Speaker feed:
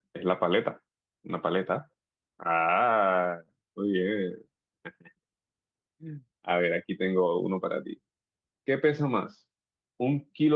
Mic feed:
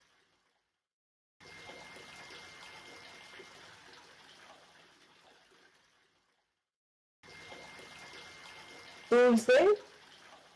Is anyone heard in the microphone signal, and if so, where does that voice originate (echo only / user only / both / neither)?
user only